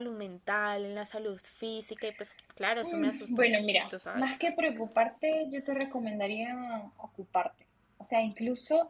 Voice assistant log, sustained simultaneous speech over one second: present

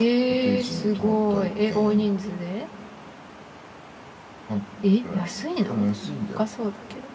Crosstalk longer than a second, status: present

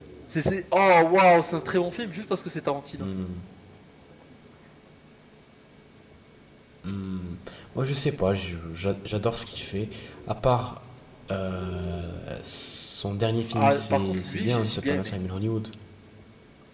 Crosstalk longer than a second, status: present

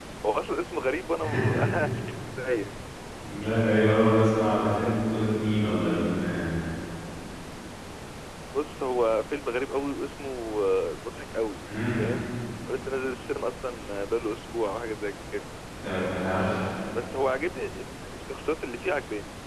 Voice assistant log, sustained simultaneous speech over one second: none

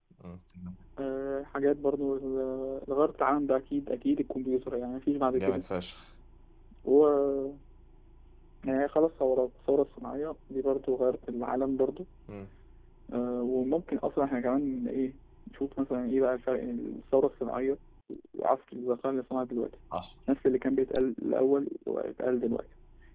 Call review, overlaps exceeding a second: none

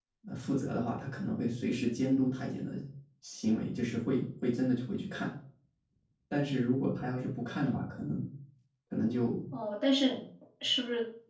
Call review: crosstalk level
none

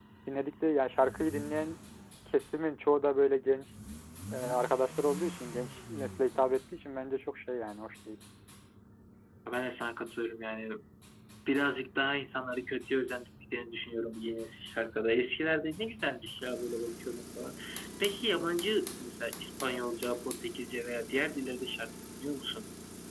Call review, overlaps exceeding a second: none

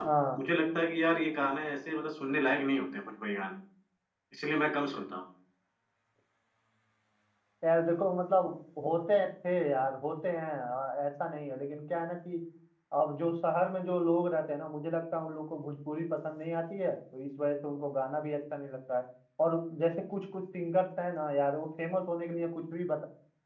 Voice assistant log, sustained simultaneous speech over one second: none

